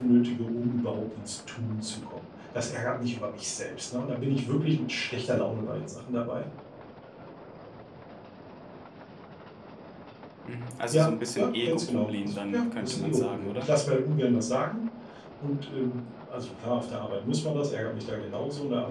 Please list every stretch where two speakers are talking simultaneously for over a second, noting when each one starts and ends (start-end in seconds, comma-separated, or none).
10.9-13.7